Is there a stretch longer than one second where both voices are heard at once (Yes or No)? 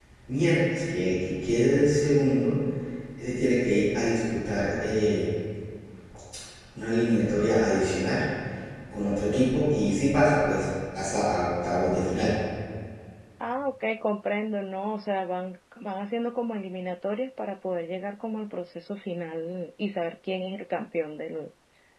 No